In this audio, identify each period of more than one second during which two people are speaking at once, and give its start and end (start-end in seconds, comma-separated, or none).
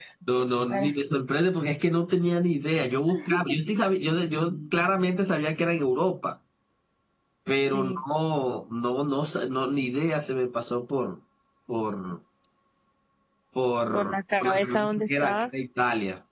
13.9-15.5